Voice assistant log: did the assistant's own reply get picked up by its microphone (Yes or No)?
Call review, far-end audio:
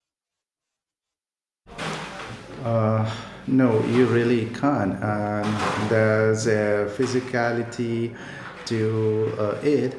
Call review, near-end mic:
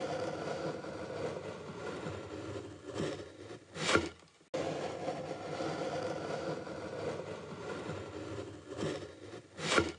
No